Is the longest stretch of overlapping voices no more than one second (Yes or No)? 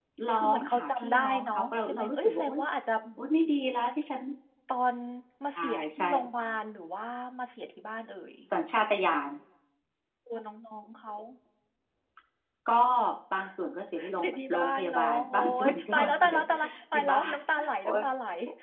No